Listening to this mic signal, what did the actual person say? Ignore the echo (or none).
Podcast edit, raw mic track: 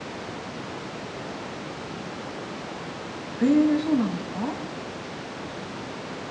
ええ、そうなんですか？